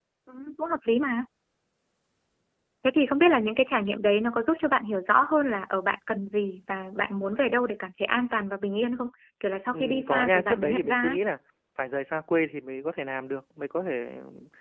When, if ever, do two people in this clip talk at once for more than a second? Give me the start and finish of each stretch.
9.7-11.2

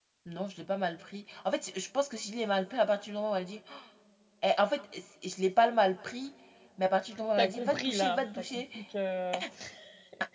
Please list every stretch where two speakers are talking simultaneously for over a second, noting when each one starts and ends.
7.4-8.6

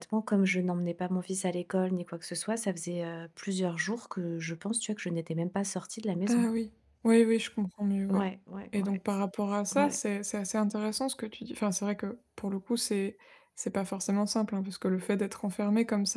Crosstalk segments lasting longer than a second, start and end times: none

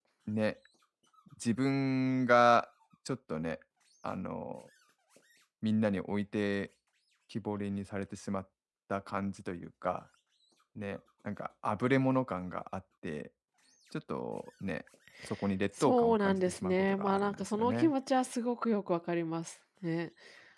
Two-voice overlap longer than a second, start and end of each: 15.8-17.9

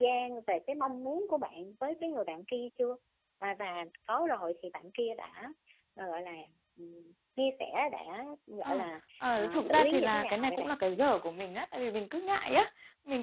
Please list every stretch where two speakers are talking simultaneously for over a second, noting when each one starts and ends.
9.3-10.7

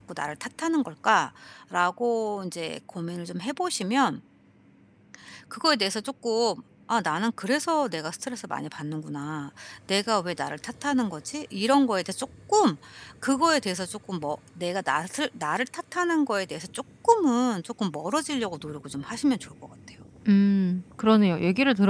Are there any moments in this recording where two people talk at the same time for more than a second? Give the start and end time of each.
none

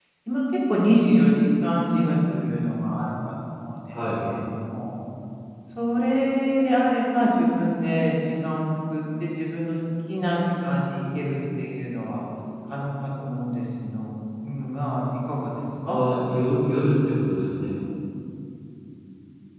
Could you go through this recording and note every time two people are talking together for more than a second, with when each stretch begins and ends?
none

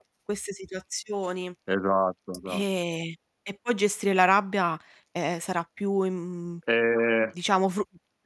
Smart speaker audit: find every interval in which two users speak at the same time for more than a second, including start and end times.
none

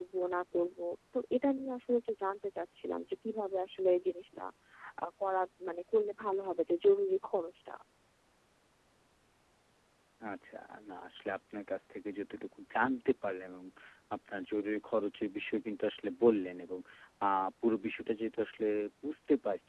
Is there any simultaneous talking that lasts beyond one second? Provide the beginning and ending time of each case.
none

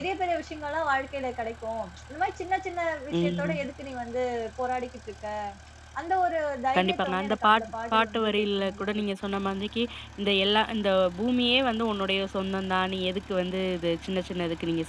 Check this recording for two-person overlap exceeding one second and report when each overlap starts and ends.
6.8-9.0

